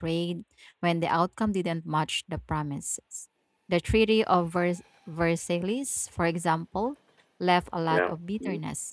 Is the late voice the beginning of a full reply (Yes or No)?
No